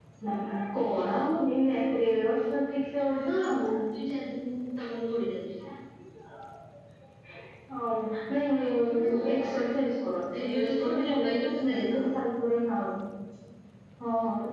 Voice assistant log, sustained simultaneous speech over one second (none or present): present